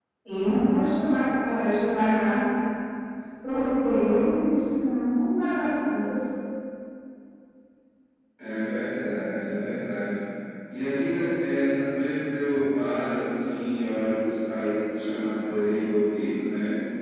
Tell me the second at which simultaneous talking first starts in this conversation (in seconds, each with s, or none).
none